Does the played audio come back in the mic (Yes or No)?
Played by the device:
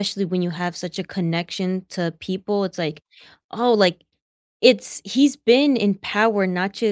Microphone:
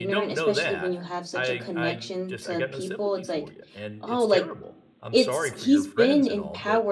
Yes